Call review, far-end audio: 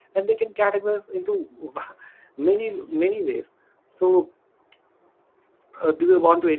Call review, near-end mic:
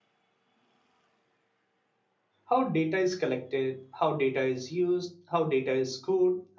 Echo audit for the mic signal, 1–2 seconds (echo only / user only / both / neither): neither